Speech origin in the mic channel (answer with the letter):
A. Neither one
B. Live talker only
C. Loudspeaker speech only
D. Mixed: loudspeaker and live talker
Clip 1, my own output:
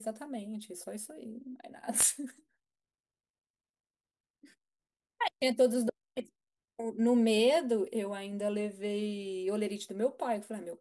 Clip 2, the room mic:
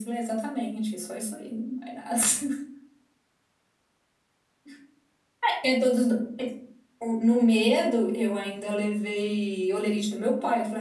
C